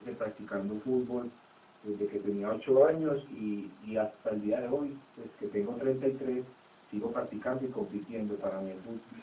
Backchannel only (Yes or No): Yes